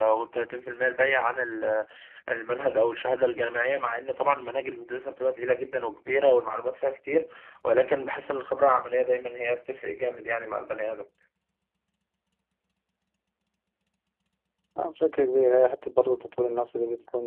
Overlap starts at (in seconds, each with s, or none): none